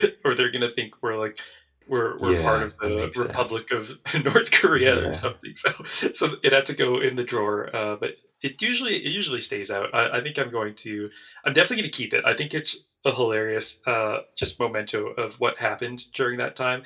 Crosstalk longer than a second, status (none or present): present